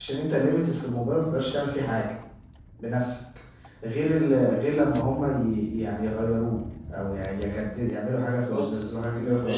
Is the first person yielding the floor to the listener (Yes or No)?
Yes